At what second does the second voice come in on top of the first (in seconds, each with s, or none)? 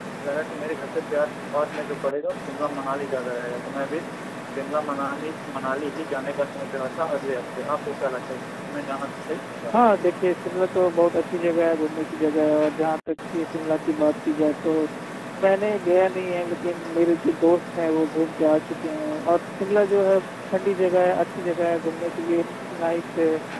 none